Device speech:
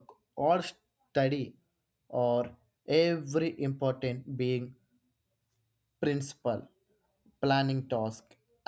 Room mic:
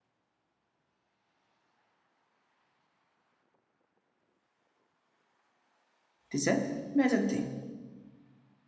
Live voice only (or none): It is a major thing.